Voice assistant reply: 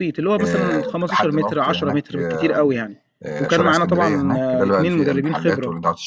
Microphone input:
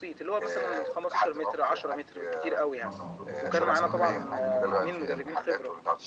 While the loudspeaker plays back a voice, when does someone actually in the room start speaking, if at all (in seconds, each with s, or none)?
2.8 s